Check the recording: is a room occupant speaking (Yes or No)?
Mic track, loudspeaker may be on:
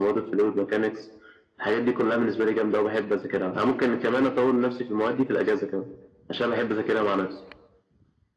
No